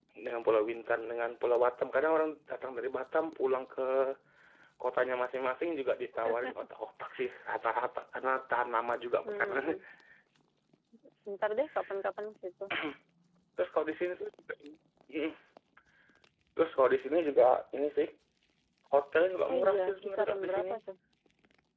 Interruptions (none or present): present